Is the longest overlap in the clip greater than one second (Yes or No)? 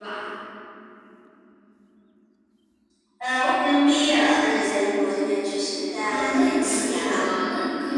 Yes